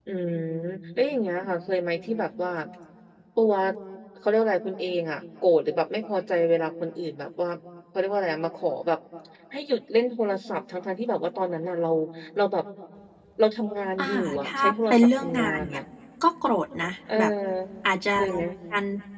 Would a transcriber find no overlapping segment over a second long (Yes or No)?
No